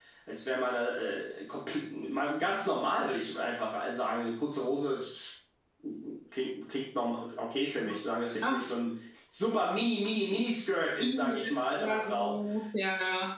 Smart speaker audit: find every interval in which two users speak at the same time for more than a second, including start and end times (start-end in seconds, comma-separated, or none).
11.0-12.4